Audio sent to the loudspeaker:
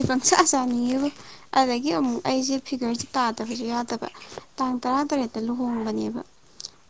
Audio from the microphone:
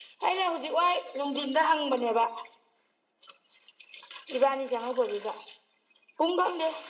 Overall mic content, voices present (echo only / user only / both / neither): user only